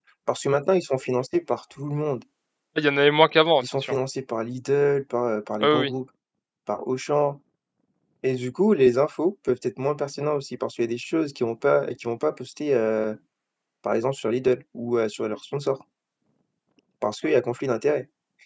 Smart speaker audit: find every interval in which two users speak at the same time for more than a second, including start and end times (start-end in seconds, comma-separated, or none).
none